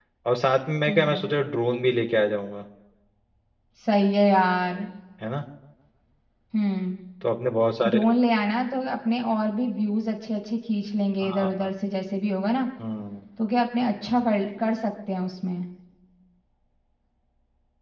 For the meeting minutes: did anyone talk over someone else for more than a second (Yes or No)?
No